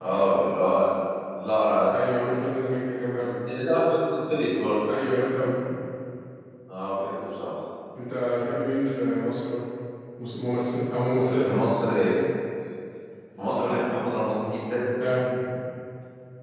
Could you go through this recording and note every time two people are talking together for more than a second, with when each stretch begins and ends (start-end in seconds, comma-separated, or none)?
none